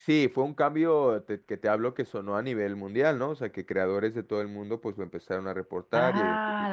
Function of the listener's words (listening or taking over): taking over